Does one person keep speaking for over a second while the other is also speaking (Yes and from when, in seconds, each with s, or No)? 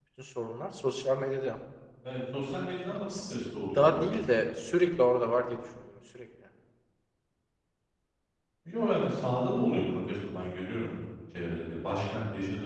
Yes, from 3.0 s